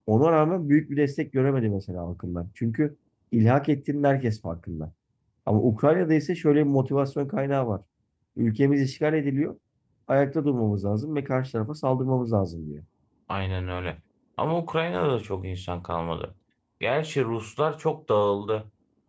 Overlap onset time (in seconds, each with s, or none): none